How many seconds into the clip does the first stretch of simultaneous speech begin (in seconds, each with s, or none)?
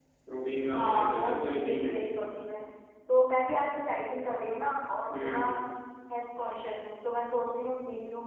0.7 s